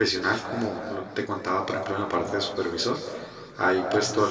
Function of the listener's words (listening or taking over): listening